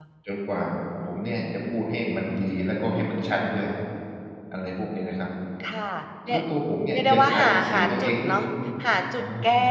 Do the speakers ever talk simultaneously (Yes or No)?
Yes